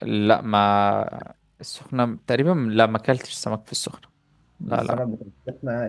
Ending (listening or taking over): taking over